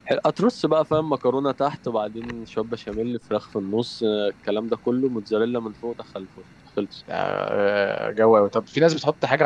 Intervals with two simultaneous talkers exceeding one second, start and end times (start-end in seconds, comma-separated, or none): none